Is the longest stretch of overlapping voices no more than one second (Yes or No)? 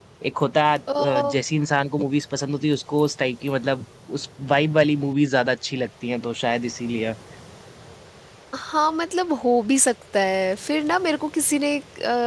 Yes